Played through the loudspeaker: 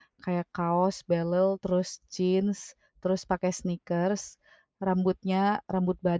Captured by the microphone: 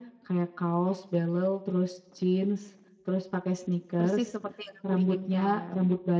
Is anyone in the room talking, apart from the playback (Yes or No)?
Yes